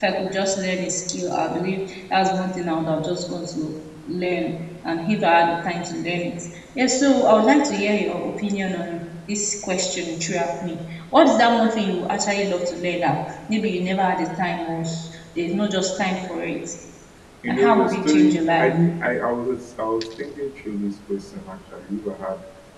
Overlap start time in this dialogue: 17 s

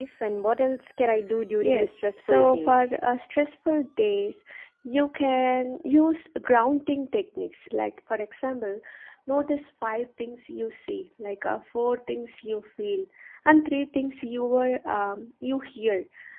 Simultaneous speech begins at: 2 s

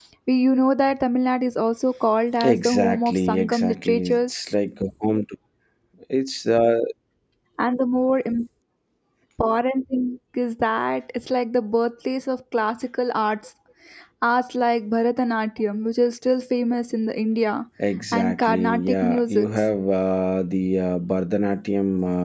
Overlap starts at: 2 s

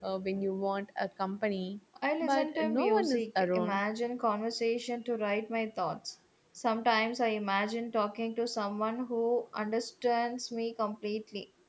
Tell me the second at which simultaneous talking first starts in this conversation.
2 s

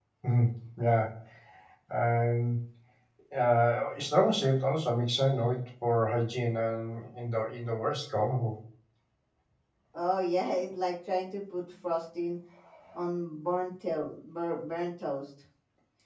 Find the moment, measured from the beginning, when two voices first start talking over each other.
none

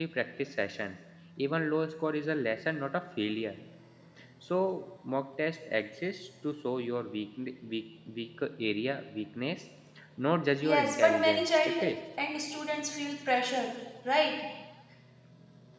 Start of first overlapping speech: 11 s

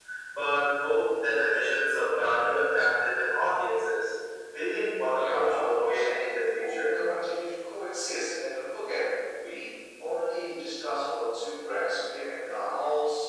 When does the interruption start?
5 s

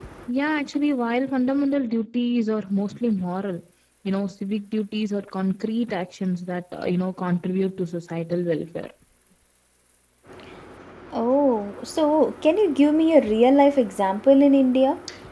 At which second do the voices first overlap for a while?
none

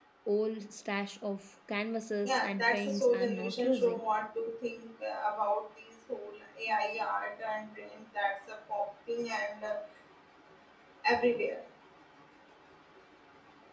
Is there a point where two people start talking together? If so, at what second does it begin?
2 s

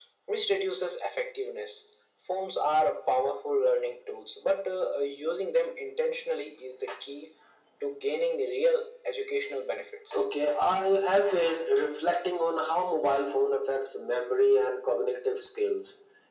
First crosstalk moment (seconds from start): none

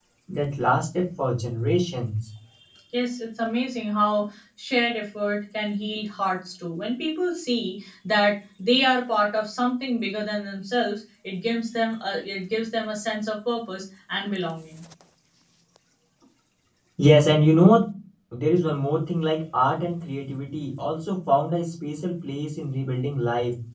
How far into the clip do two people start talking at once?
none

